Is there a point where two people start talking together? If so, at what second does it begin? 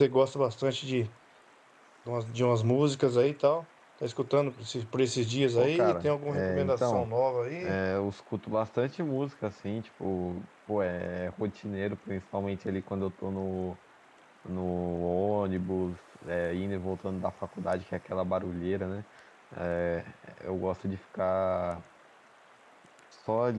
5.6 s

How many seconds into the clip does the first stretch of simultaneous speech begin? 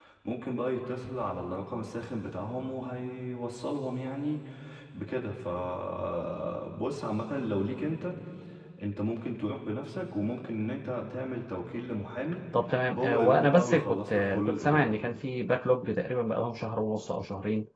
12.9 s

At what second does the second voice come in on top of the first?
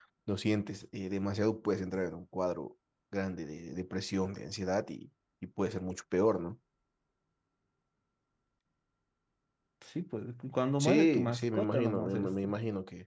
10.8 s

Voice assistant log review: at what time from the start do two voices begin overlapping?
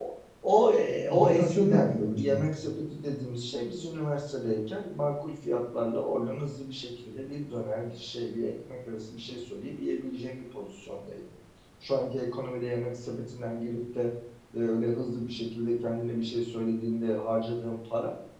1.1 s

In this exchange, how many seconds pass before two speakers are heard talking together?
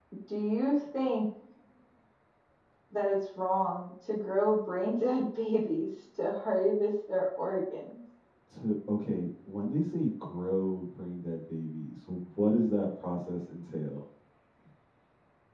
none

